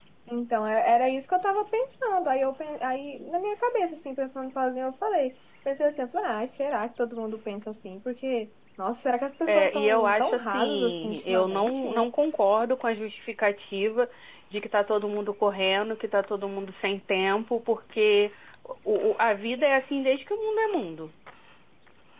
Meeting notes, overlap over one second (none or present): present